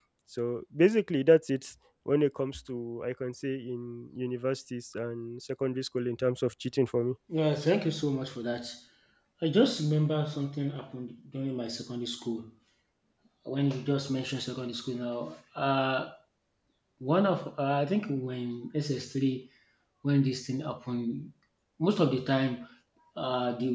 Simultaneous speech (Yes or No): No